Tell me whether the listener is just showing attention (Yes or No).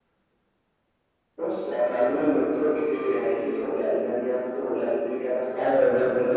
No